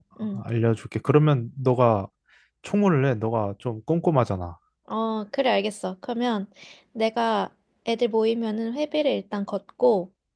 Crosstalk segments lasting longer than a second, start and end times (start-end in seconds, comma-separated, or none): none